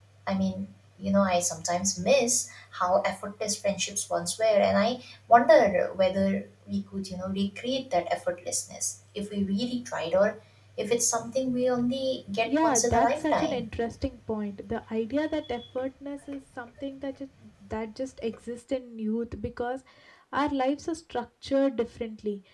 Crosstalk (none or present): present